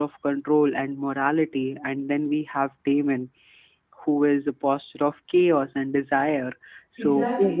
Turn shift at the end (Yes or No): Yes